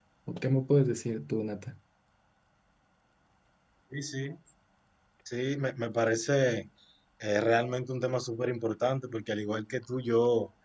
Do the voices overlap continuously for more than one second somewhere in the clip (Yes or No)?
No